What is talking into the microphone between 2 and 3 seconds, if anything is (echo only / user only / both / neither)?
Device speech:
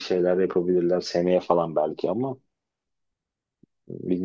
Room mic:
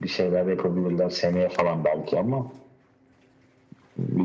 echo only